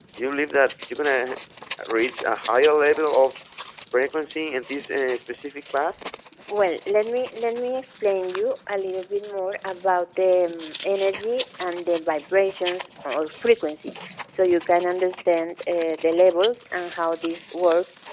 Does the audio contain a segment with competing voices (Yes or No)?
No